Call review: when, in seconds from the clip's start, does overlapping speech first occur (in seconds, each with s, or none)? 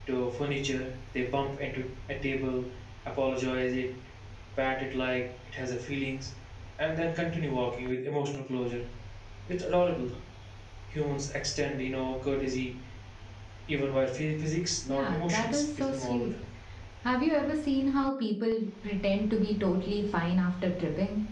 14.9 s